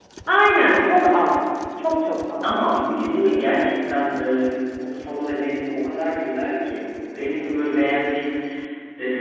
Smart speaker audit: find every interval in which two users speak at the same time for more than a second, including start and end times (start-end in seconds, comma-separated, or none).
none